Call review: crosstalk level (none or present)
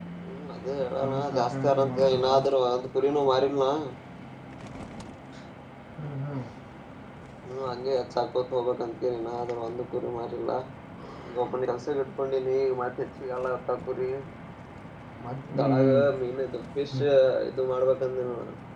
present